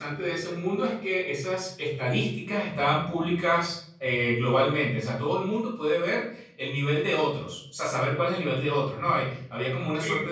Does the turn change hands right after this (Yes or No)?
No